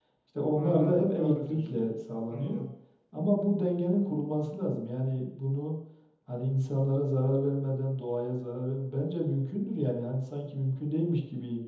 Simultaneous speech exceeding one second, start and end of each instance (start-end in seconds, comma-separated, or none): 0.5-1.8